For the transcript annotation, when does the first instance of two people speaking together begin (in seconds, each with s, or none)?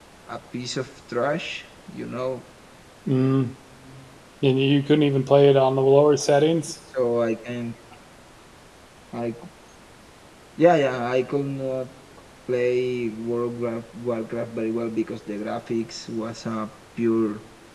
none